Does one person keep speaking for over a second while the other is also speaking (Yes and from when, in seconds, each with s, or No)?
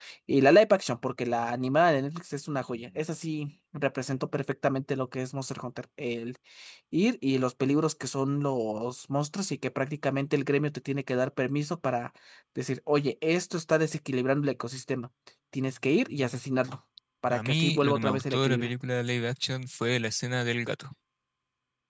Yes, from 17.3 s